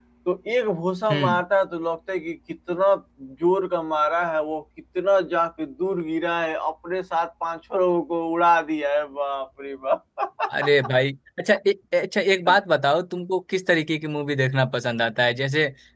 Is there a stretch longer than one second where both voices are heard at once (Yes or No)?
No